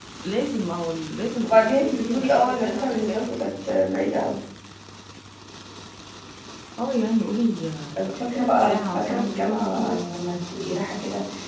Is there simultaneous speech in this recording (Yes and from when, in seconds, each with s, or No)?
Yes, from 1.4 s